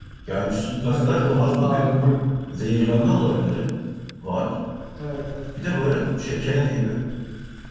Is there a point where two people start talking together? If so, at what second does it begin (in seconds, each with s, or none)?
0.8 s